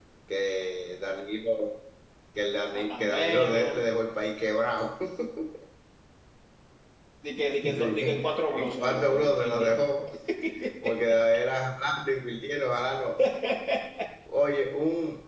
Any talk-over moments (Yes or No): Yes